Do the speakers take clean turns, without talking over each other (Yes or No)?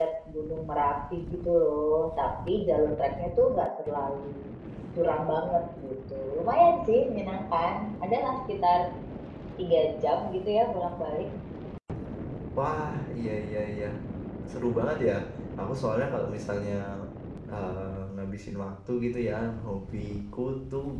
Yes